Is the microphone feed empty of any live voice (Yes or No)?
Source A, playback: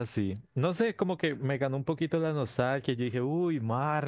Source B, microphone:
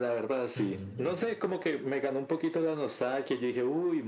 No